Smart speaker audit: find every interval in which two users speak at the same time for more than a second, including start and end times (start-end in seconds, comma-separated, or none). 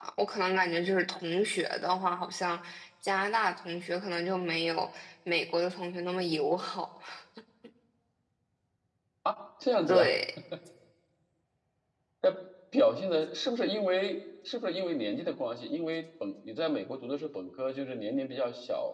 none